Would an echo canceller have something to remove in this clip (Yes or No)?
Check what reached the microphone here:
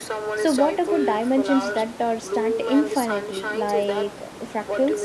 Yes